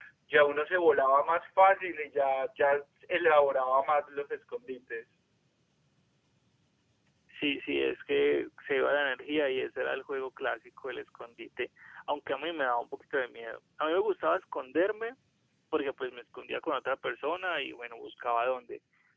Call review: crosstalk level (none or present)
none